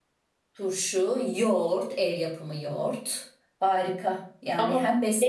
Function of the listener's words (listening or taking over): taking over